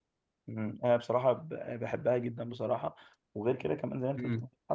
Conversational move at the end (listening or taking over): listening